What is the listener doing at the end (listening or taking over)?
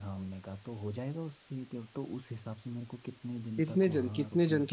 taking over